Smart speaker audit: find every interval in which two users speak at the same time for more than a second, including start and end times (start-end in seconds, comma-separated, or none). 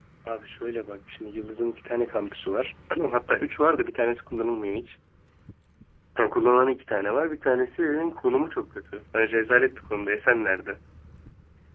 none